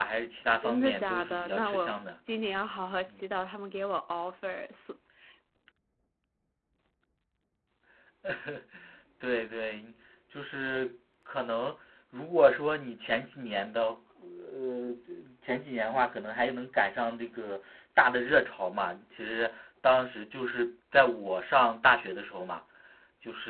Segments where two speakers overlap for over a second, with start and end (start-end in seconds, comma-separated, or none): 0.6-1.9